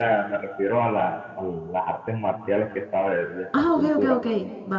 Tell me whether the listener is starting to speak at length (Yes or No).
Yes